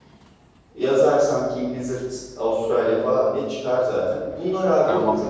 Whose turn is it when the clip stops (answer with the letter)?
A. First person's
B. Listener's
A